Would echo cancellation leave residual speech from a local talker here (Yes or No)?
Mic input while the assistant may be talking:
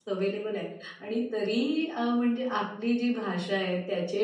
Yes